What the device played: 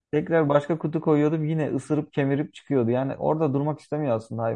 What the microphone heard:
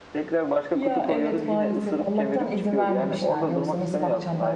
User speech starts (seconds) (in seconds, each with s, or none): 0.7 s